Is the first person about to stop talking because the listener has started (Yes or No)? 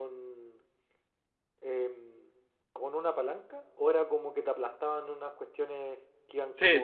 Yes